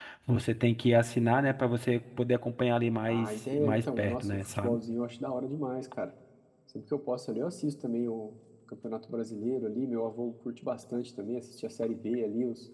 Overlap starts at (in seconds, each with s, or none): 3.1 s